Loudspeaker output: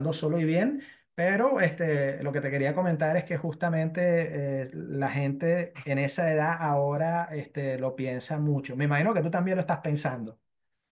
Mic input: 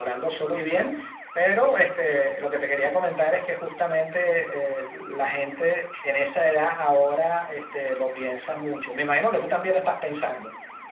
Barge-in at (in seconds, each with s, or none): none